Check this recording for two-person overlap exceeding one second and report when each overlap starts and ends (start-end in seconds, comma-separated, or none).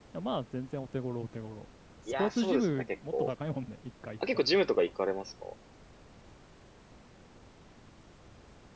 2.1-3.3